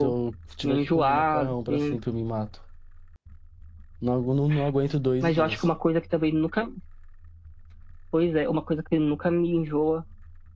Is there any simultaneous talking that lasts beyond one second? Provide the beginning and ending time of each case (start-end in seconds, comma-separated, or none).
0.6-2.0